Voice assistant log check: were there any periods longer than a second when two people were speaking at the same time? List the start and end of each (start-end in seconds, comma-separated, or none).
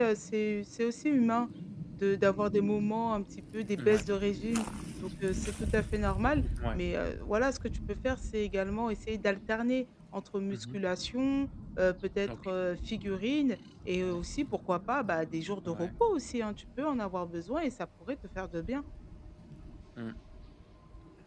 none